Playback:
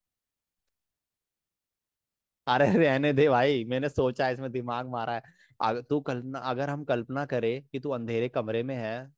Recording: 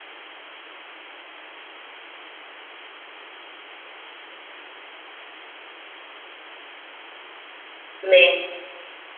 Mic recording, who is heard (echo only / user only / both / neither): user only